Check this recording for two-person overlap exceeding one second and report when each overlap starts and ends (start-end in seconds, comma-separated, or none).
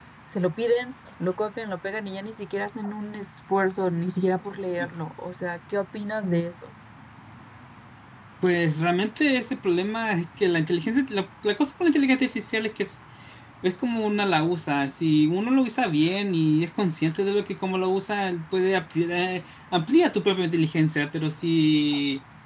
none